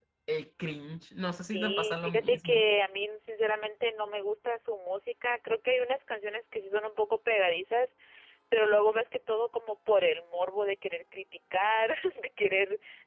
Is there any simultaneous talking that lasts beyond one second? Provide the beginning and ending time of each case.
1.4-2.6

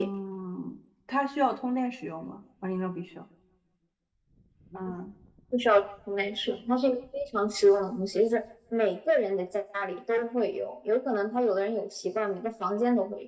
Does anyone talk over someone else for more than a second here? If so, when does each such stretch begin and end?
none

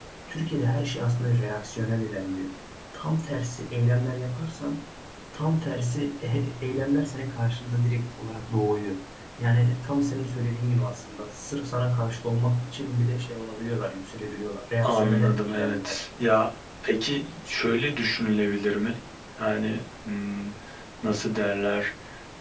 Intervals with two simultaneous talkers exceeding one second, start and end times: 14.8-16.1

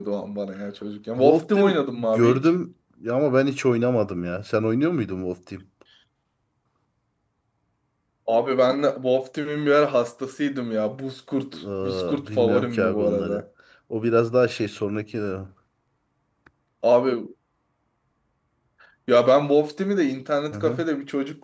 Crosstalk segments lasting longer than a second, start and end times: 1.2-2.5, 11.5-13.4

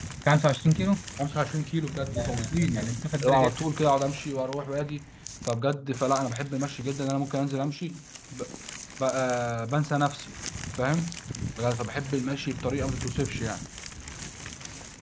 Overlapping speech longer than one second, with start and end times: 2.2-3.5

